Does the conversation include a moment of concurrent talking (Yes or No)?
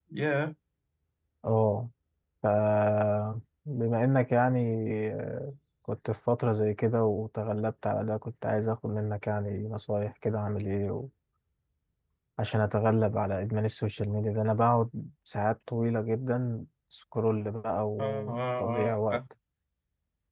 Yes